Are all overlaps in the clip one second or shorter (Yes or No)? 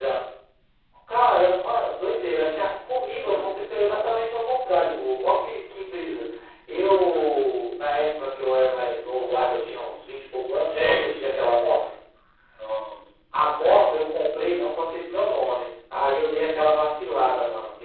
Yes